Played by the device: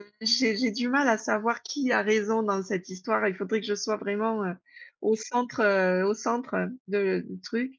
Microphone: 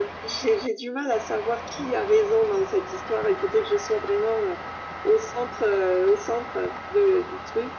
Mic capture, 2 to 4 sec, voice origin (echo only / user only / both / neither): echo only